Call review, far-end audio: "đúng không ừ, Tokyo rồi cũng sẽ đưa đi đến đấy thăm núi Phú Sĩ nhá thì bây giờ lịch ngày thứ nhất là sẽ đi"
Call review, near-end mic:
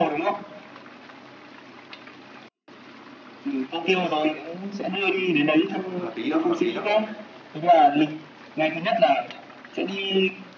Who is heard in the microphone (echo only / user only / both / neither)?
both